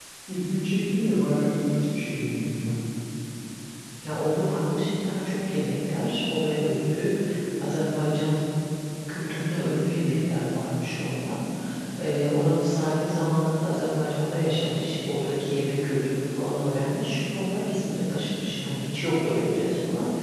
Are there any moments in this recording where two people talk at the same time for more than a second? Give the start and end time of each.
none

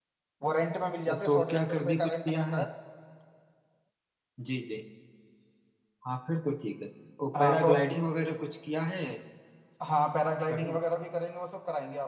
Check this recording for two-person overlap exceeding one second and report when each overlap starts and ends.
1.0-2.6

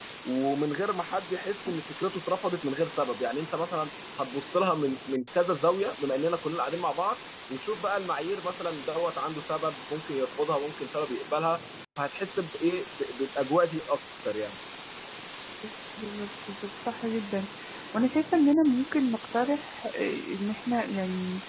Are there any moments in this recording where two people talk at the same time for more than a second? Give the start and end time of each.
none

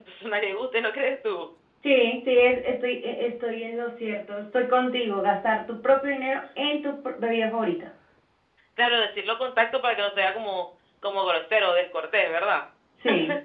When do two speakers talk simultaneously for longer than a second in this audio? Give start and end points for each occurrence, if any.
none

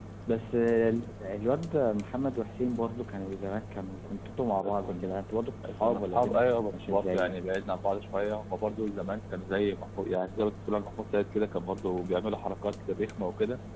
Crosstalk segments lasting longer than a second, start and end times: 5.8-7.4

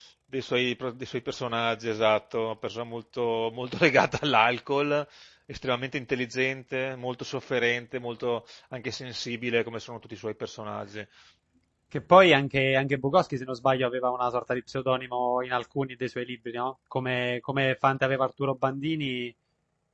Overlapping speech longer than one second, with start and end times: none

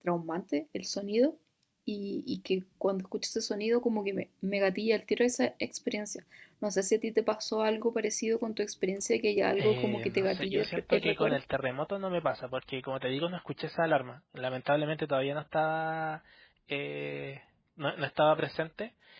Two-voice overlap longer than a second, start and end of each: 9.6-11.4

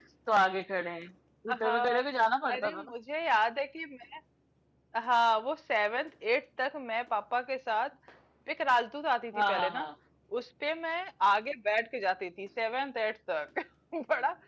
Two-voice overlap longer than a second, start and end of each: none

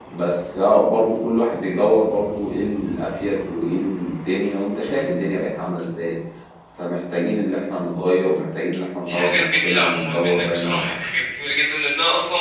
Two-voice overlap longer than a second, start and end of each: 9.1-11.1

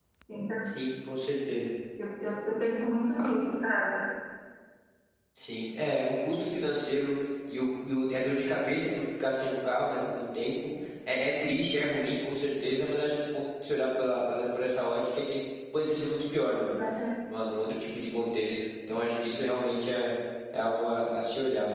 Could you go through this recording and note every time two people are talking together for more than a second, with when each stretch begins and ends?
none

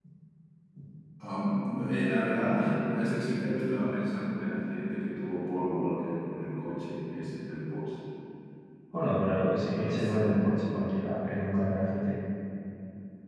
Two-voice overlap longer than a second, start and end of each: 9.6-10.9

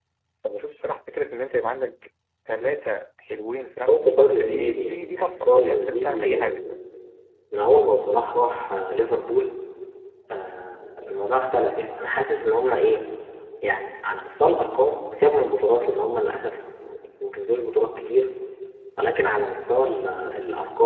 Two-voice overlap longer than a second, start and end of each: 3.9-6.6

